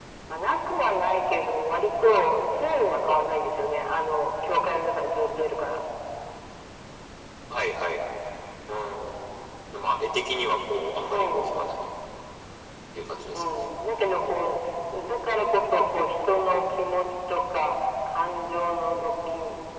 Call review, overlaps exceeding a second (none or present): none